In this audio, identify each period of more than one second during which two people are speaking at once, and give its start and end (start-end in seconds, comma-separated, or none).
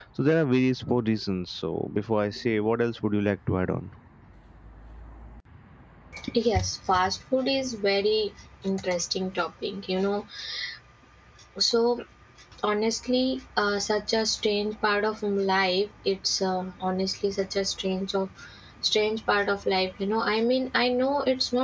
none